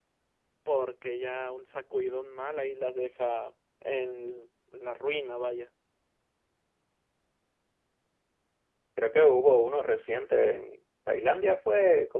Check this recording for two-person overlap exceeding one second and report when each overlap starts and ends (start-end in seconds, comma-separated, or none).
none